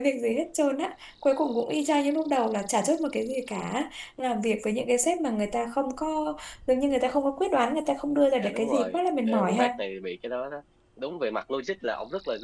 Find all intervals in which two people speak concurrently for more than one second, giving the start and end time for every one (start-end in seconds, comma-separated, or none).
8.4-9.7